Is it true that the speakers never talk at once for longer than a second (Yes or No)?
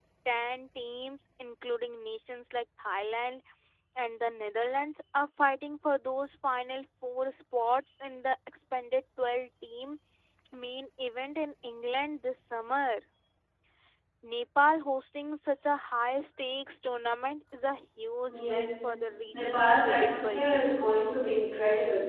No